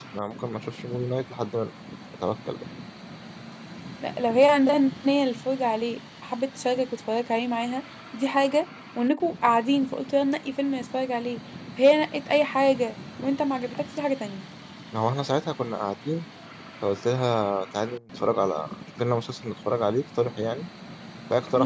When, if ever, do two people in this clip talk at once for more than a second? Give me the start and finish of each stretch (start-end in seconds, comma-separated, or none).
none